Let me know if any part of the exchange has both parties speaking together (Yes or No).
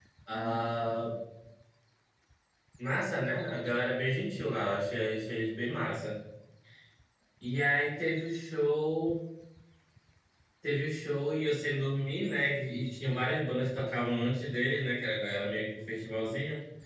No